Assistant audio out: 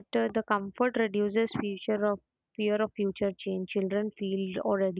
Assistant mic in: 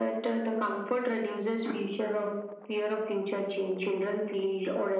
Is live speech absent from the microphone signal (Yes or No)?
Yes